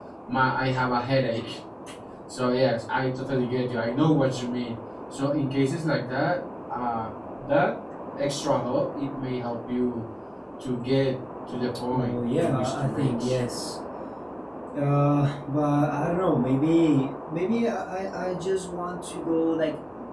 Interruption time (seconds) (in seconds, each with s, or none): 11.9 s